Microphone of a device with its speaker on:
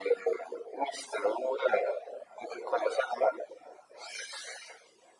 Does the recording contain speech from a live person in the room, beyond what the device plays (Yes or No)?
No